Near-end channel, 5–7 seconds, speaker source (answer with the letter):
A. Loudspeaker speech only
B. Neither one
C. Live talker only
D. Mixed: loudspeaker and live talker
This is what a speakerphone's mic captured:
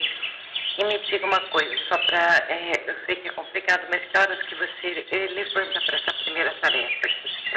A